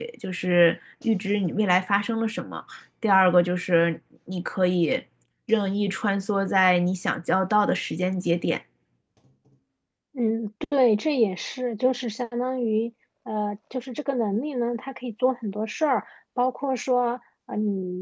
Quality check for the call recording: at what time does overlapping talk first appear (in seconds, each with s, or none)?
none